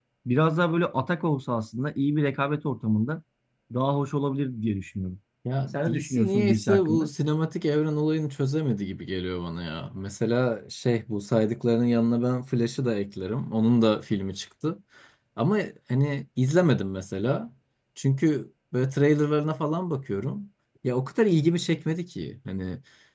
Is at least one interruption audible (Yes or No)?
Yes